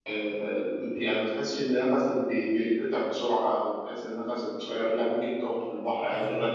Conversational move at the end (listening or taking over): listening